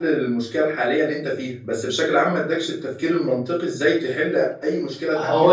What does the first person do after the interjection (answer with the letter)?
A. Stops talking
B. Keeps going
A